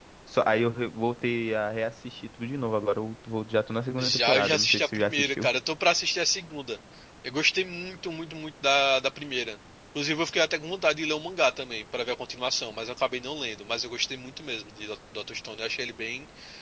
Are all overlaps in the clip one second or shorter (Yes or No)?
No